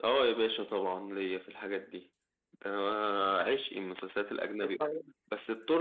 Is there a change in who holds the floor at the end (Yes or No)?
No